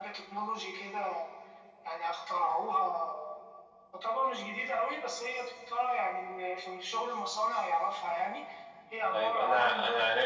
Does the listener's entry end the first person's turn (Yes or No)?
Yes